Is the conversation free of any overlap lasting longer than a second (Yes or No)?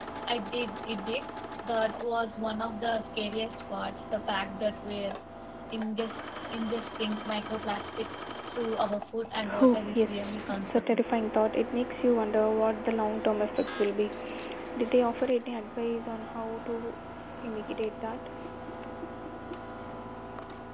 No